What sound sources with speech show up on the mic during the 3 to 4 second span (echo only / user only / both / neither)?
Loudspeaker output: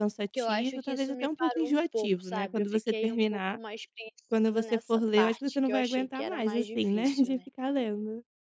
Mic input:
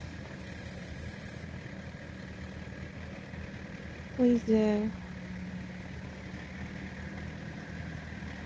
neither